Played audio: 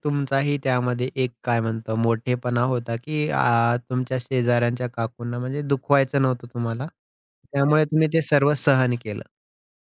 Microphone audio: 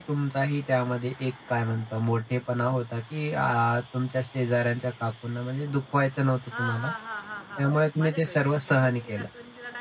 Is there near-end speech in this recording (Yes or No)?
Yes